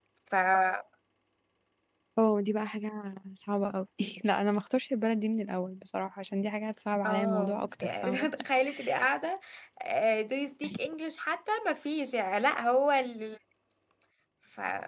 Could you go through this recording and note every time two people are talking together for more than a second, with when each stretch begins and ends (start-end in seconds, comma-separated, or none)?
7.0-8.3